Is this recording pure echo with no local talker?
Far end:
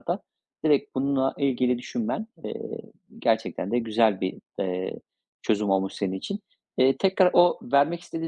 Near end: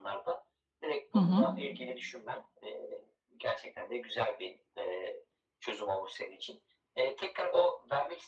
No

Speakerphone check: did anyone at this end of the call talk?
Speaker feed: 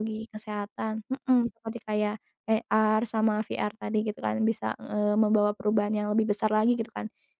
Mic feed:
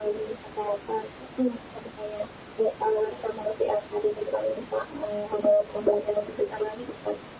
No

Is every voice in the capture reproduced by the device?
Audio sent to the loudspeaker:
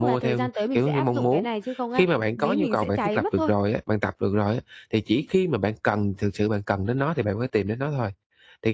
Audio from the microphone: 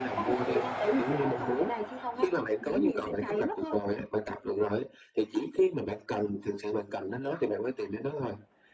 Yes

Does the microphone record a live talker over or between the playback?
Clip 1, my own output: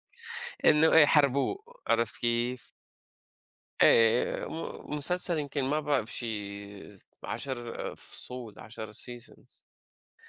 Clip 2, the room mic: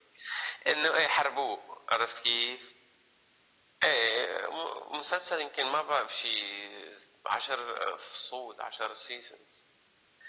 No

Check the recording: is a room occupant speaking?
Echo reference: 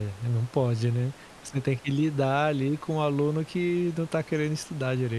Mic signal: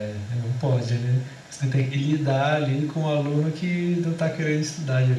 No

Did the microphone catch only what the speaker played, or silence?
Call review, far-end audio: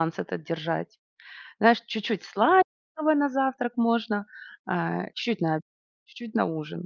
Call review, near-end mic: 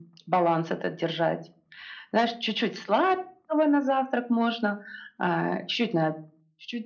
Yes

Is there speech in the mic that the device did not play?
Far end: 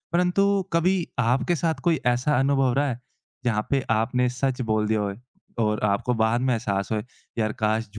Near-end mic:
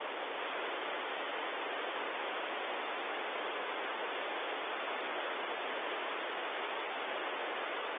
No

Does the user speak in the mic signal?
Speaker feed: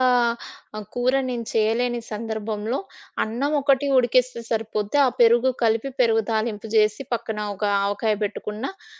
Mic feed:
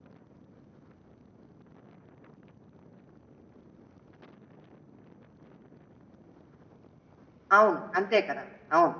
Yes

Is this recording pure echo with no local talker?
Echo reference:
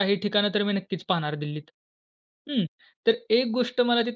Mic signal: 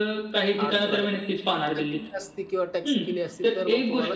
No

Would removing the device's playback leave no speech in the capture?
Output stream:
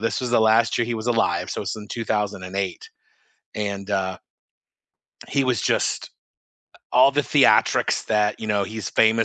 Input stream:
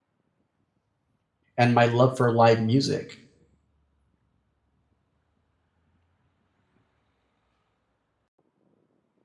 No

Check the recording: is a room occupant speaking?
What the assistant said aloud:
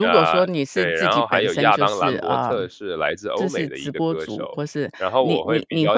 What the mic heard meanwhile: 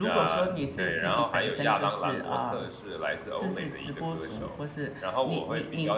No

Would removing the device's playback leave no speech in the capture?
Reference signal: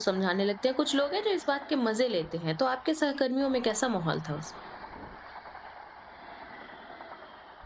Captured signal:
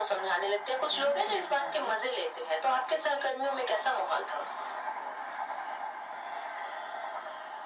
No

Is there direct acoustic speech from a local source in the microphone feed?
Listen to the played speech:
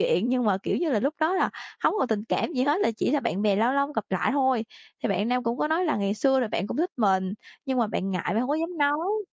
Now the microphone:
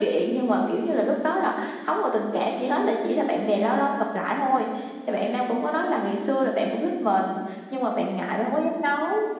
No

